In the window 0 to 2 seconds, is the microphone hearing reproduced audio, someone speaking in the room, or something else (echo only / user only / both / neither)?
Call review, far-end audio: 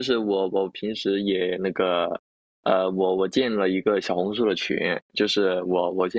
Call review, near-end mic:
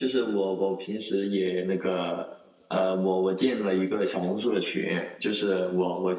echo only